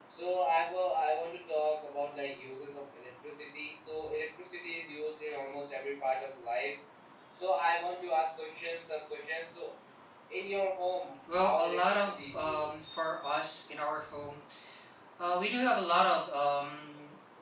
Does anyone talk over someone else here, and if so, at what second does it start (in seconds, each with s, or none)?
11.3 s